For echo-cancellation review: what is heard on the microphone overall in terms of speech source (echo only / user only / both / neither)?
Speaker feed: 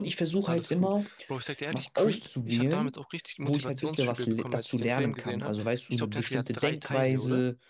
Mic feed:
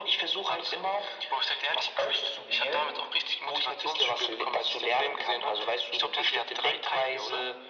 echo only